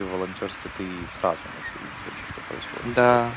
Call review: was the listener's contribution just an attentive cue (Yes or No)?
No